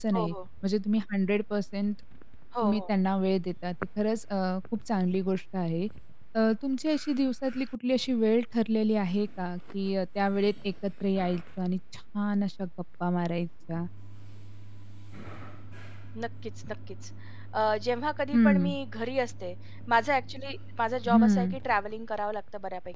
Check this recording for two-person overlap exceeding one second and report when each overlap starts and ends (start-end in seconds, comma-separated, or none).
none